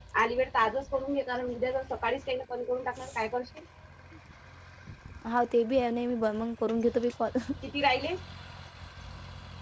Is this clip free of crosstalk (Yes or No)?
Yes